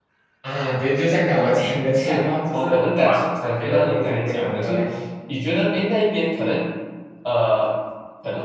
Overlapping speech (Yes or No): Yes